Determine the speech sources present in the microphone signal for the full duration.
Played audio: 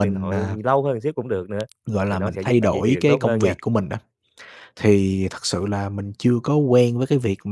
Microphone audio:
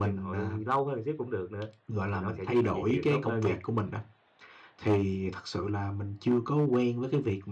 echo only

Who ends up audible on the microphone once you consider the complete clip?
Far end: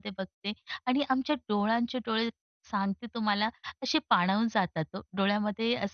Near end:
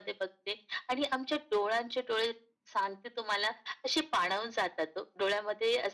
echo only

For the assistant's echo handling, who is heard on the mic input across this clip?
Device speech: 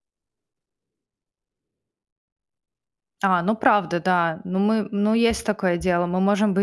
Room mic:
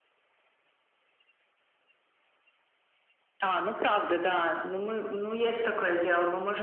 echo only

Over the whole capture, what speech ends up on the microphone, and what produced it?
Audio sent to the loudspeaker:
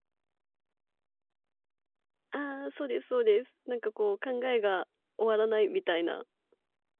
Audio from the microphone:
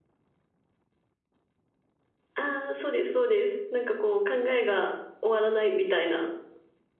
echo only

